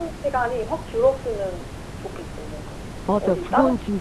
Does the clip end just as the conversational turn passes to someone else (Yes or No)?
Yes